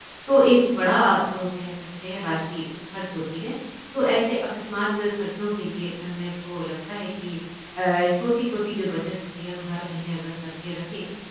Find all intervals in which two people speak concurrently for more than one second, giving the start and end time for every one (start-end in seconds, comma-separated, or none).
none